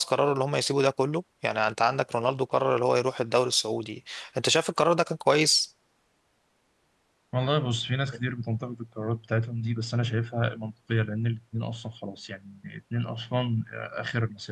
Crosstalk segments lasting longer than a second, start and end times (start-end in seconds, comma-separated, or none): none